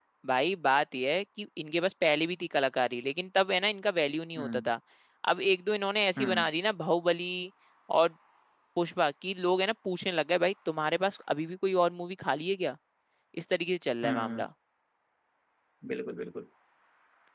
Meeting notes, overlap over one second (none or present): none